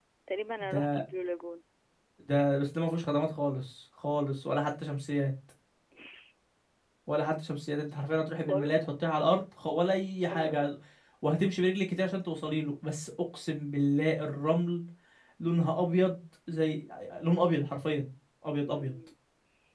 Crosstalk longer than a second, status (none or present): none